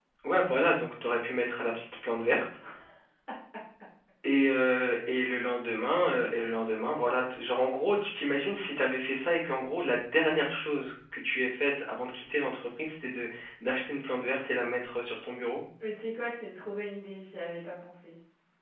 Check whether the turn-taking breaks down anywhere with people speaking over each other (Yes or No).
No